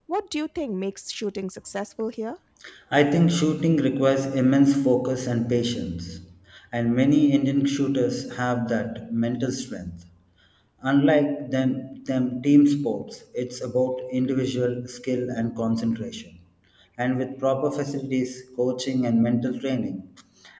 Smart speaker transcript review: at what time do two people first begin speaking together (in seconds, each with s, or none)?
none